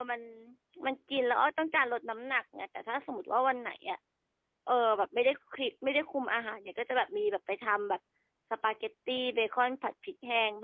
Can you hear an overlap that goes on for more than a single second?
No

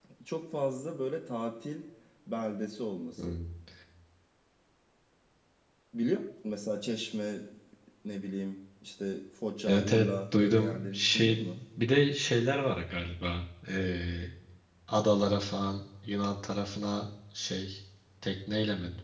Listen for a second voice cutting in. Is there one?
Yes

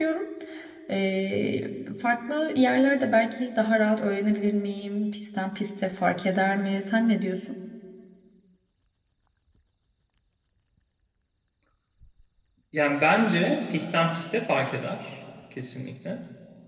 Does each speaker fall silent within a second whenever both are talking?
Yes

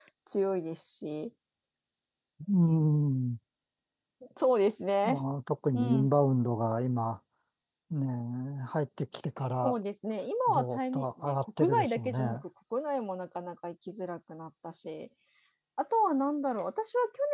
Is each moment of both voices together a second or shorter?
No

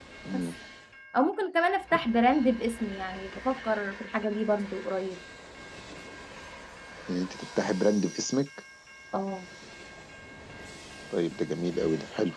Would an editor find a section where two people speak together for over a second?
No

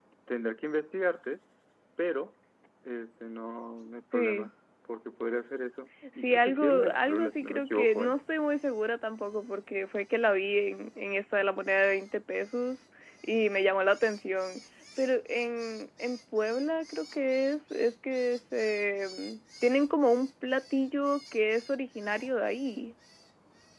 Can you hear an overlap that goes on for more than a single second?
Yes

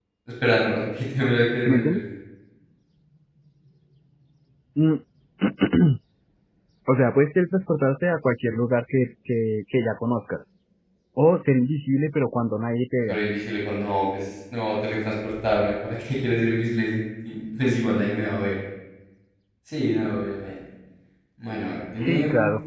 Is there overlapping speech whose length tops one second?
No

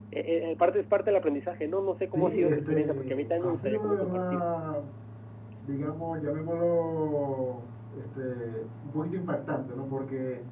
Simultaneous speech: Yes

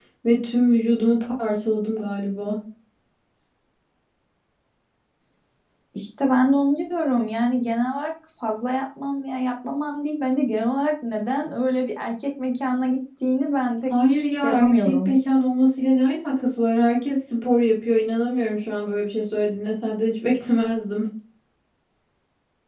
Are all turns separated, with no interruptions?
No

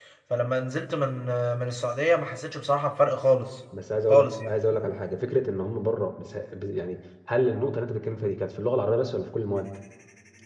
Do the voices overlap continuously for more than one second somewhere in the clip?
No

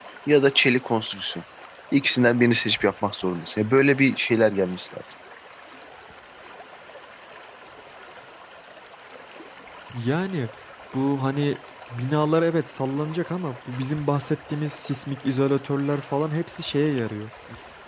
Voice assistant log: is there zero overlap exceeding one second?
Yes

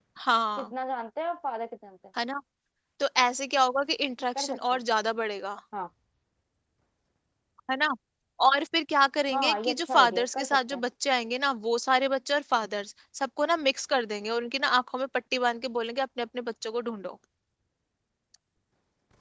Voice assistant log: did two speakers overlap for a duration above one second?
Yes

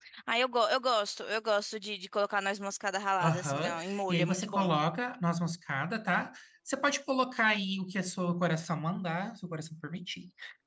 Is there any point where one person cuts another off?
Yes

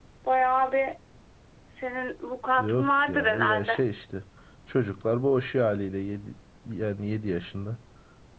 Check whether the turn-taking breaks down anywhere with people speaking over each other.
Yes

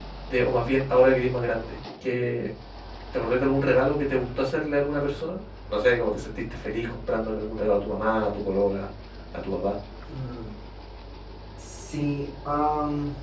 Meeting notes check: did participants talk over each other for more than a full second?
No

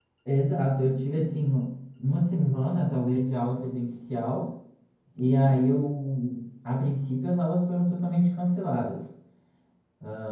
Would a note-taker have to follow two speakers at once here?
No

